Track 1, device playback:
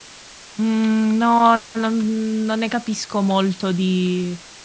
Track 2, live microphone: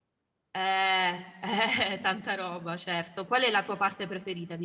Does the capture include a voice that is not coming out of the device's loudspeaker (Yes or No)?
Yes